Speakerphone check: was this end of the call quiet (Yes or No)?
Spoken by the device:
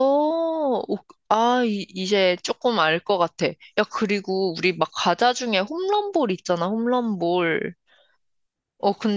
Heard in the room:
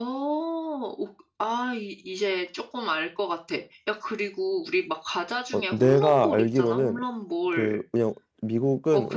No